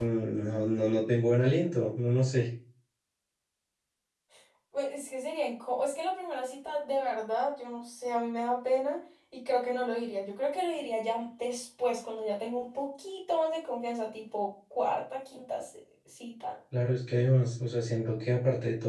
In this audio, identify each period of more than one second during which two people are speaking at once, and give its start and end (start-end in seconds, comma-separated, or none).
none